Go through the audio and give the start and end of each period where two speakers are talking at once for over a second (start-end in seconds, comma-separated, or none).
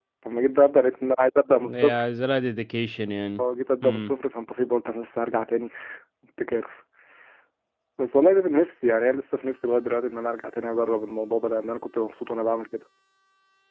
none